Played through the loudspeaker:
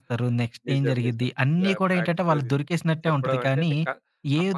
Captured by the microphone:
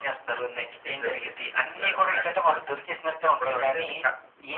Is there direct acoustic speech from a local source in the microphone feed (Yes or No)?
No